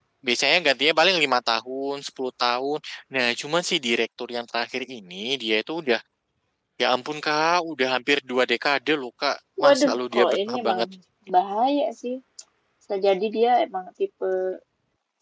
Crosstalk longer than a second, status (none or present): present